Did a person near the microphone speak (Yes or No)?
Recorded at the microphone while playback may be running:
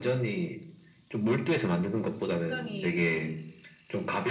Yes